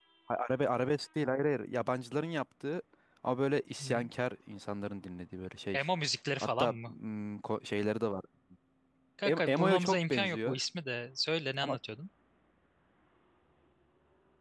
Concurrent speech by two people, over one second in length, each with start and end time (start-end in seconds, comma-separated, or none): 9.2-10.6